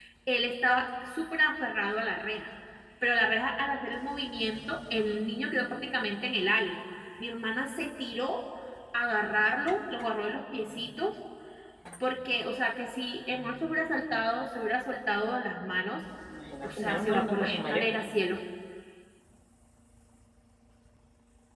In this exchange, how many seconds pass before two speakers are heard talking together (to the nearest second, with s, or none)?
17 s